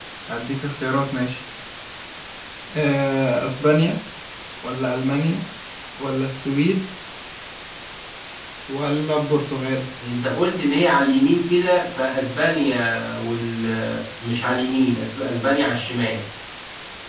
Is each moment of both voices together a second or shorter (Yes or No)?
Yes